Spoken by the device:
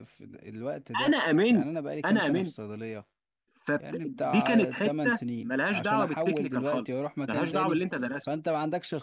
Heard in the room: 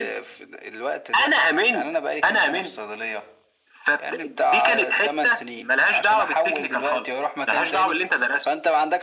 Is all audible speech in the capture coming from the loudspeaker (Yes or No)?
Yes